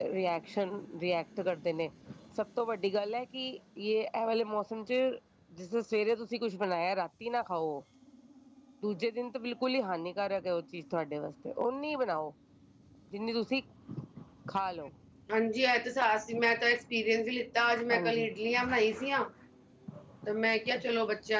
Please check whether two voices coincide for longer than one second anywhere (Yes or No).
No